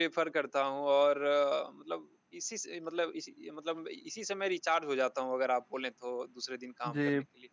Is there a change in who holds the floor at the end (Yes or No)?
Yes